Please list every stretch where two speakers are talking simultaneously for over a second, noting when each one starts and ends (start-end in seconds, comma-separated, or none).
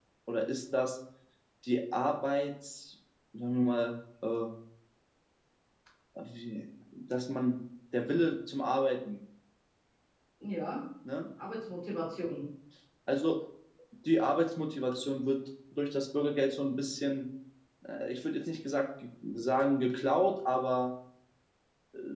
none